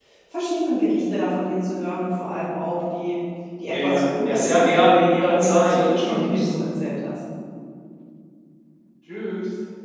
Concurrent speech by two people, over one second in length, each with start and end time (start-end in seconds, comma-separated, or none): 3.7-6.5